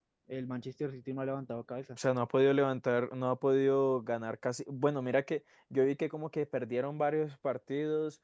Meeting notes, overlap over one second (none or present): none